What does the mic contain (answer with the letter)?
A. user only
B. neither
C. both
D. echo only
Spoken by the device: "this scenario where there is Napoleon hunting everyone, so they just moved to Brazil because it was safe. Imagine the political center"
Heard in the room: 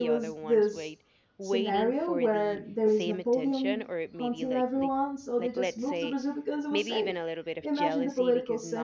C